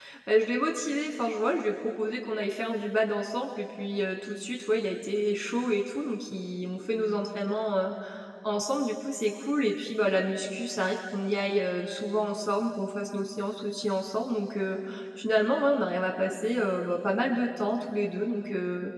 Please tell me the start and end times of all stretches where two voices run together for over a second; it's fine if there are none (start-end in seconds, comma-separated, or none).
none